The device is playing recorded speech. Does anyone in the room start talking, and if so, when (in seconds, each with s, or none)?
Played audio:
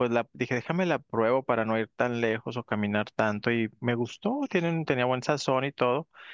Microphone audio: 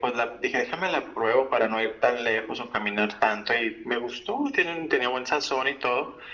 none